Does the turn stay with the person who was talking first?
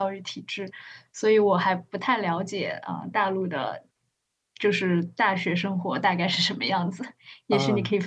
No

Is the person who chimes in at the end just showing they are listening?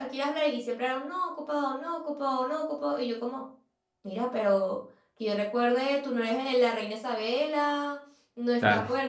Yes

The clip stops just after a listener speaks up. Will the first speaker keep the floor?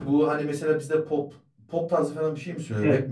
No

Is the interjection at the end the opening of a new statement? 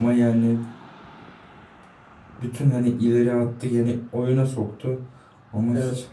No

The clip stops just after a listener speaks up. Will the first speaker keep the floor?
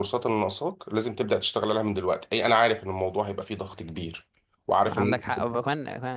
No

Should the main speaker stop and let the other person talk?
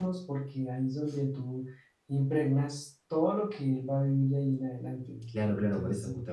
Yes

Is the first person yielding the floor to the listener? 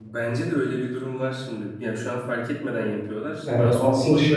Yes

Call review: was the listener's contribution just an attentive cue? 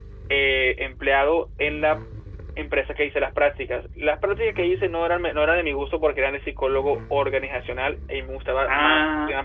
No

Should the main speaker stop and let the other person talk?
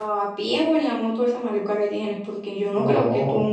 No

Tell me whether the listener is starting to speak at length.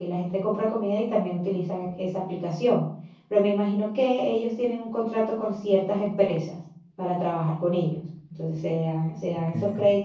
No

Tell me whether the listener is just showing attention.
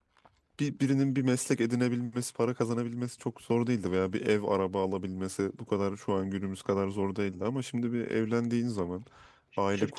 No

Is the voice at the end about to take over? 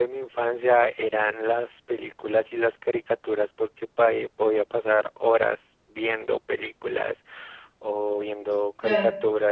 No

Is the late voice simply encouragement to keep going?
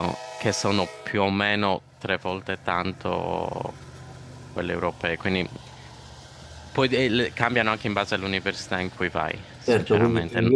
No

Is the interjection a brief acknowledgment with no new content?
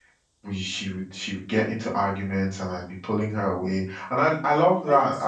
Yes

